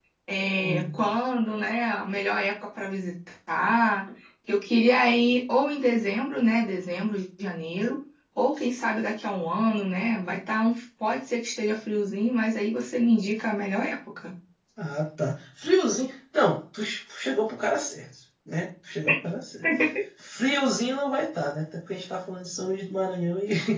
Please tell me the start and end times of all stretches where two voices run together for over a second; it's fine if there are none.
none

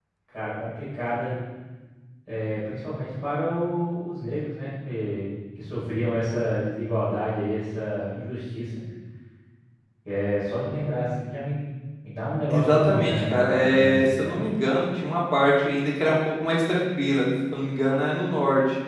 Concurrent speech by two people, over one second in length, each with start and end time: 12.5-14.4

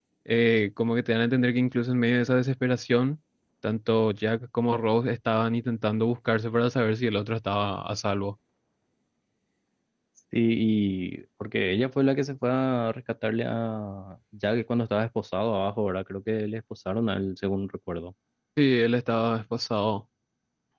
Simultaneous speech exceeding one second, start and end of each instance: none

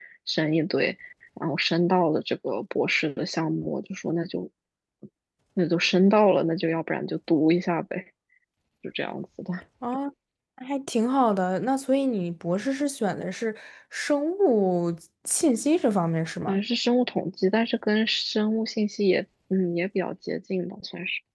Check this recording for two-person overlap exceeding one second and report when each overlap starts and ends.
none

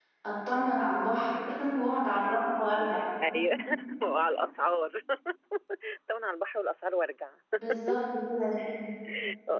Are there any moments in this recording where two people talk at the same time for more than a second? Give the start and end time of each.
none

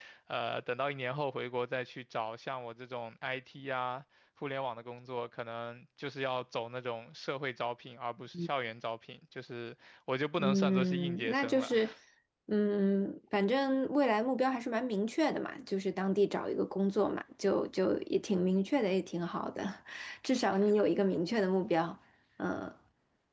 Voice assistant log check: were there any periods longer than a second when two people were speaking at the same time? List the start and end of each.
10.4-11.8

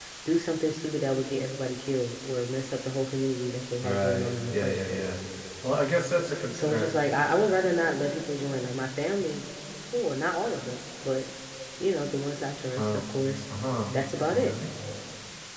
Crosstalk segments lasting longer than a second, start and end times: 3.8-5.1

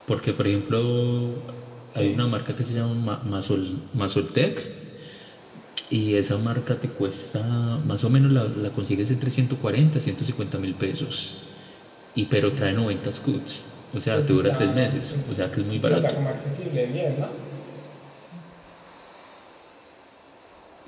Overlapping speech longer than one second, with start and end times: 14.1-16.2

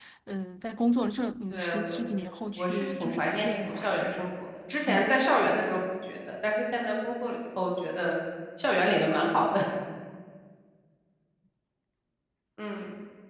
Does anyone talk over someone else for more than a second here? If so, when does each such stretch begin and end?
2.6-4.1

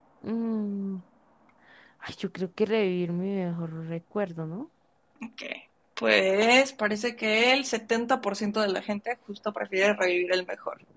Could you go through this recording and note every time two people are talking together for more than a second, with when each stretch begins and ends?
none

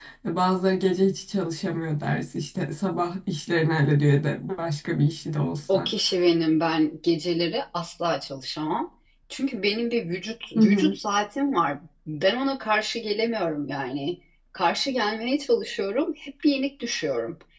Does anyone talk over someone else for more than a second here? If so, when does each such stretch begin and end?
none

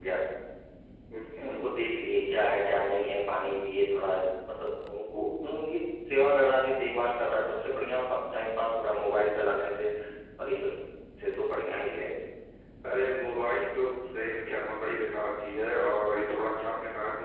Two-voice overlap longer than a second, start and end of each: none

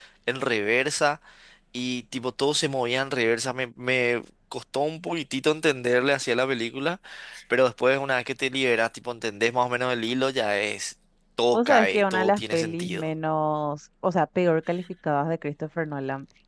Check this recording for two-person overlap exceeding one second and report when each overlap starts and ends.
11.5-13.0

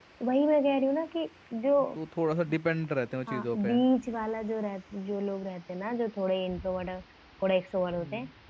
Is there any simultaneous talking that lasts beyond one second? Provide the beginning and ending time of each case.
none

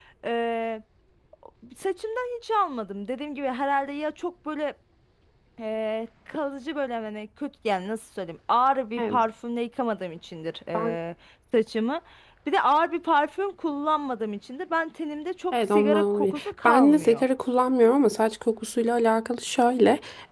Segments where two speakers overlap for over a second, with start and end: 15.5-17.2

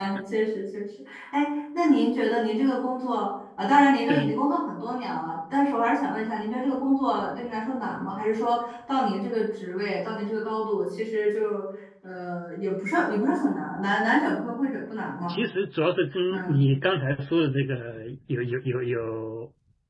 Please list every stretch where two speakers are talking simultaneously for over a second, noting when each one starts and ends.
none

